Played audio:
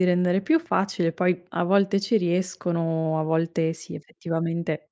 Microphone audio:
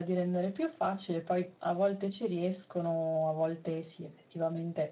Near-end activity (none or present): none